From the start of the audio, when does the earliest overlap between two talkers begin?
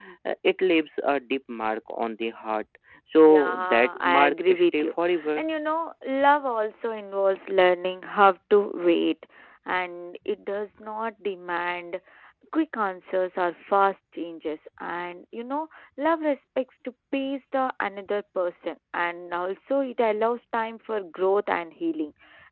3.3 s

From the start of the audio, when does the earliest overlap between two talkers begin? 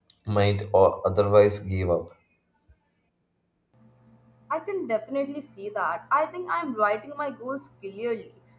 none

